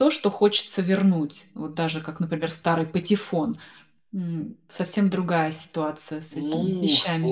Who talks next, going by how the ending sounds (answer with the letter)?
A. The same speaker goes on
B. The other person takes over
B